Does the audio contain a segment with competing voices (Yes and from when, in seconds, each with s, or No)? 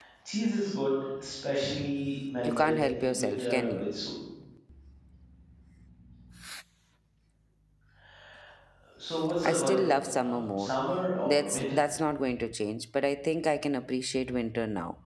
Yes, from 2.4 s